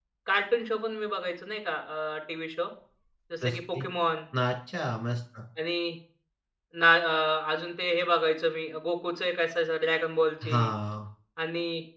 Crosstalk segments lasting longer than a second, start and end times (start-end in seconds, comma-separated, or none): none